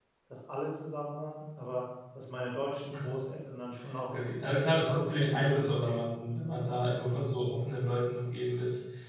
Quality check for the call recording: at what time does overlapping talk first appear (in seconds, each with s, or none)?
4.1 s